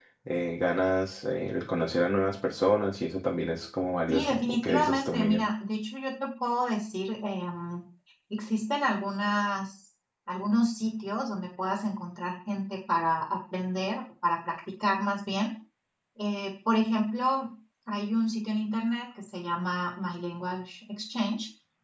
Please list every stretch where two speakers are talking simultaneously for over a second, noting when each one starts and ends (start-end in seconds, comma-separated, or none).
4.1-5.5